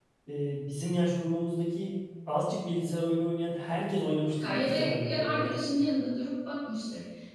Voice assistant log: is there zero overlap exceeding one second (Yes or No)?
No